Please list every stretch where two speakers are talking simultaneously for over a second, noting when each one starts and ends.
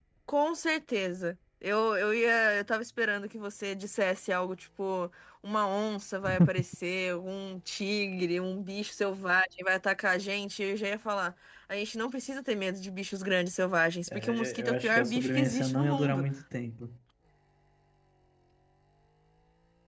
14.1-16.2

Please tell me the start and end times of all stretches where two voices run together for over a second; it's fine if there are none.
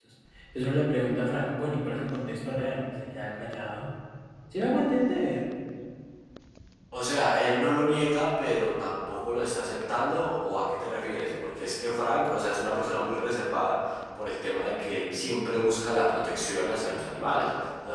none

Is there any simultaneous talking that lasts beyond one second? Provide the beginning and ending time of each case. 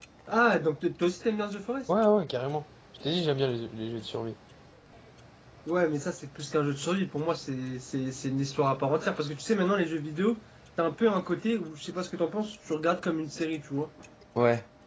none

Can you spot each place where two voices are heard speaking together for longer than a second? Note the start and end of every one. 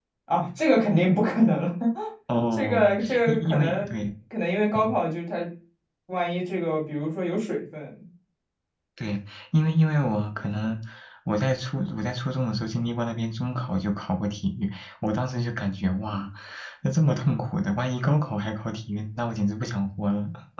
2.5-3.9

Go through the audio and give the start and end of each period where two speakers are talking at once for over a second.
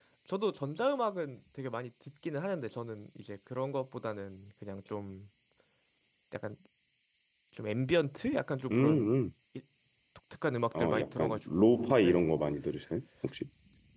10.8-12.2

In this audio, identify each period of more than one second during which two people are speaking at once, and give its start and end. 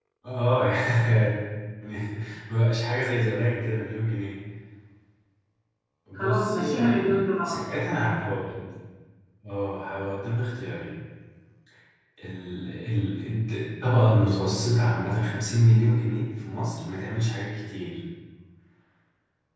6.1-7.6

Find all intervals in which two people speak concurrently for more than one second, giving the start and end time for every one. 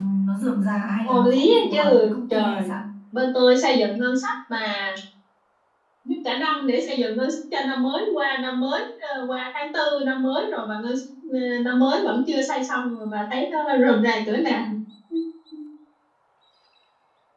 1.0-2.7

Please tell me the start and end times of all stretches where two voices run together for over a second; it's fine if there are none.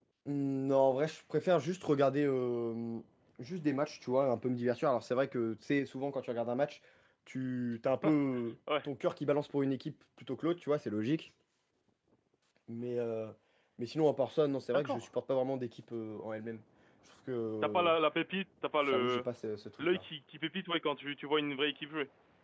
none

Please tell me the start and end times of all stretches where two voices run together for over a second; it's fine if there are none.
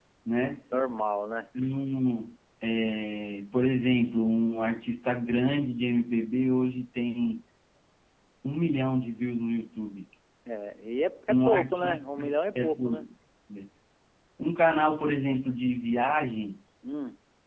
11.3-13.1

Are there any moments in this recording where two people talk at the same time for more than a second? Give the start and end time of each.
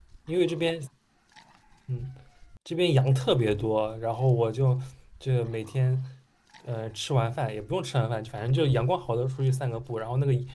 none

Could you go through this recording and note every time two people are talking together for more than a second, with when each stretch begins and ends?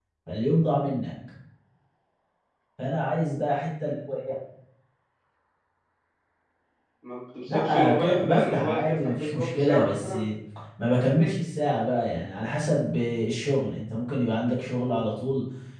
7.5-10.2

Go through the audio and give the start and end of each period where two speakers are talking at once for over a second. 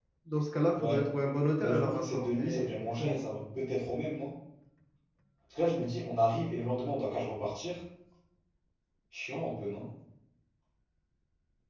1.6-3.2

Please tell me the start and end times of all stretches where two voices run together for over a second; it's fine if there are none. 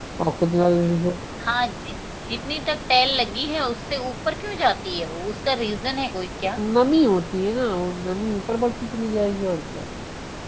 none

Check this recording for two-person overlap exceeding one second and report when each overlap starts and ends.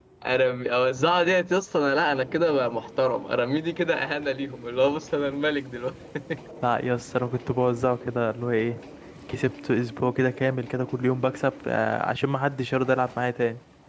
none

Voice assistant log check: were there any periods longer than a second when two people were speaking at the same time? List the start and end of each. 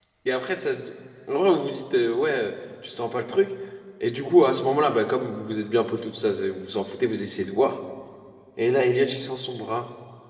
none

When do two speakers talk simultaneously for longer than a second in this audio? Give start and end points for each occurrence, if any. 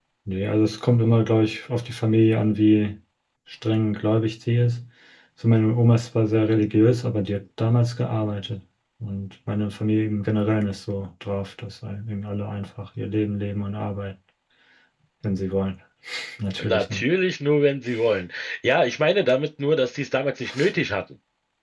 none

